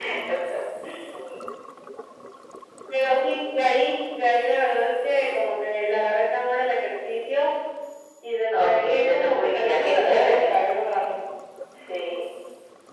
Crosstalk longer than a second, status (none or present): present